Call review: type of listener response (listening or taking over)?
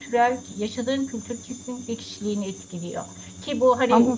listening